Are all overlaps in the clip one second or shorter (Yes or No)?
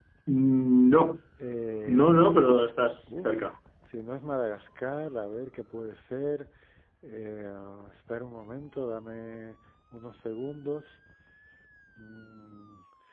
Yes